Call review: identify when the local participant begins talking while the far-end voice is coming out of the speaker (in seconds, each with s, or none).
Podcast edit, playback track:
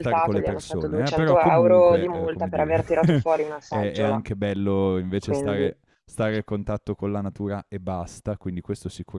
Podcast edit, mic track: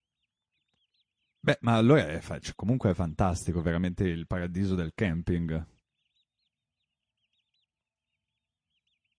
1.4 s